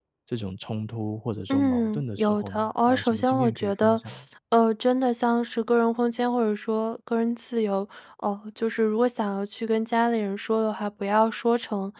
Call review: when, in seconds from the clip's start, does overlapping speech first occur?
1.5 s

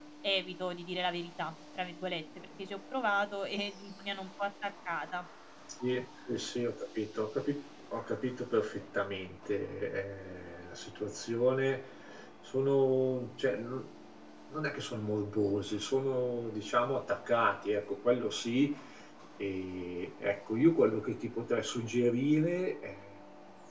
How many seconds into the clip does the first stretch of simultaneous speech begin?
none

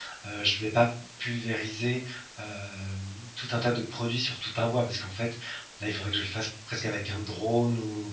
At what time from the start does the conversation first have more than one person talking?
none

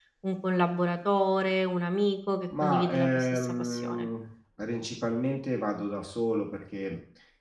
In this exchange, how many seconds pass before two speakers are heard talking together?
2.5 s

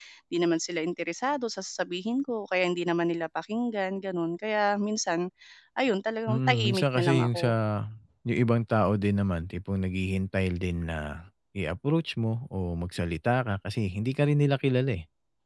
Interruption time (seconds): 6.3 s

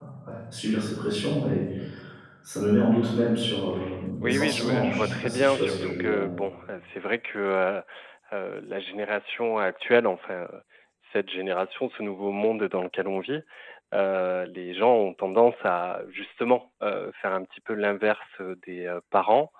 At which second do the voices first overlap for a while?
4.2 s

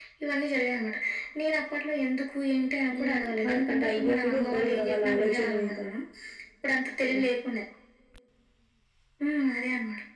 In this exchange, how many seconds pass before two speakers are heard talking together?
2.9 s

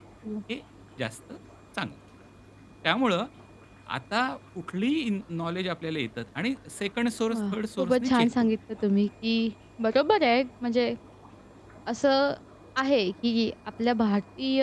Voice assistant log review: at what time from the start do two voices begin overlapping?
7.3 s

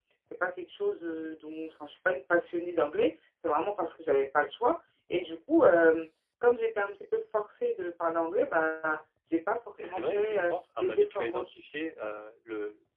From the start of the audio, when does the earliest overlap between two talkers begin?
9.8 s

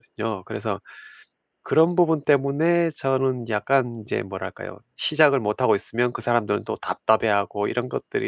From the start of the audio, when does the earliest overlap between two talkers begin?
none

